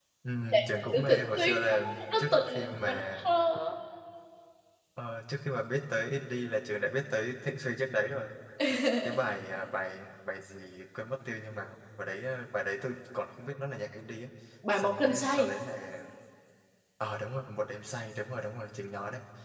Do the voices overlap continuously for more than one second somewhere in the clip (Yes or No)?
Yes